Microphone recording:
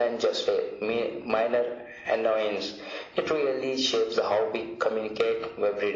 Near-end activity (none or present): none